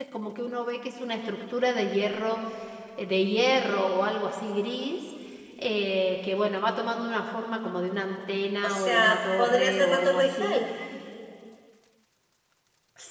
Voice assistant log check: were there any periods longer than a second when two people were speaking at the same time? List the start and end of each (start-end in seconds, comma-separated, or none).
8.6-10.6